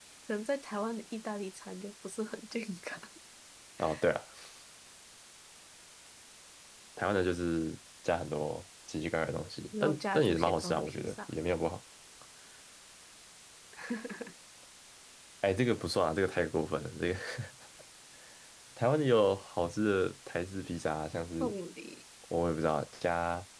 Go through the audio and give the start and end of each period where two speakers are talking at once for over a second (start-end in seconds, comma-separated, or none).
9.8-11.3